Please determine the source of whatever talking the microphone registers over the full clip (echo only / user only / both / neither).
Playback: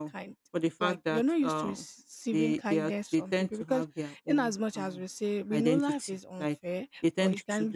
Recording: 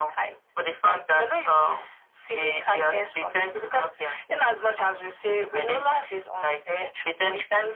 echo only